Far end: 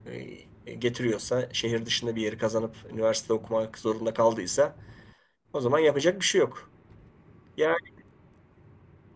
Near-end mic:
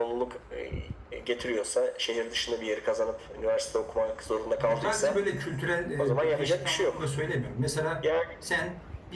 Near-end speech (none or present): present